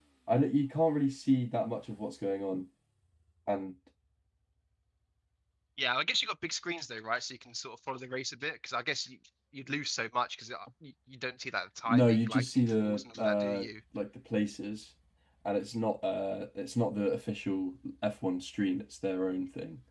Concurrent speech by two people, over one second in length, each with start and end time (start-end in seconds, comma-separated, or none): 11.9-13.7